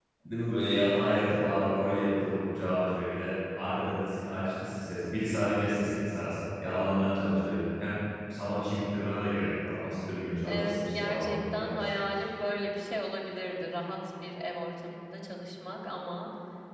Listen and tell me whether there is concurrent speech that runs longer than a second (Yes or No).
Yes